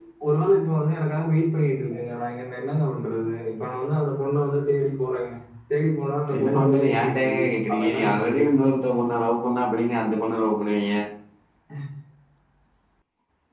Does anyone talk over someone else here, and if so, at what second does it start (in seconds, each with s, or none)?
6.3 s